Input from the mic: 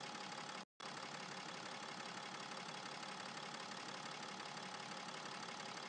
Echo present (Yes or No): No